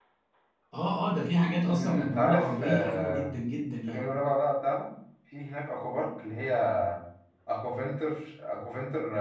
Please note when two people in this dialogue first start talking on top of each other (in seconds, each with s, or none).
1.6 s